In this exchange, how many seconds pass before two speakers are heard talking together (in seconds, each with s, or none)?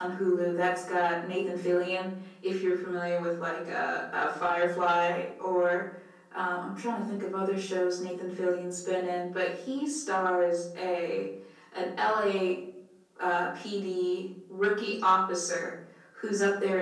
none